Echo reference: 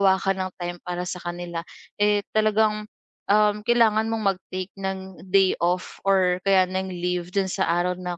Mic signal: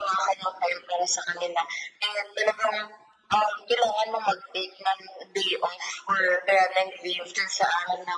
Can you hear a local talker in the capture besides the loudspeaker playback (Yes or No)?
No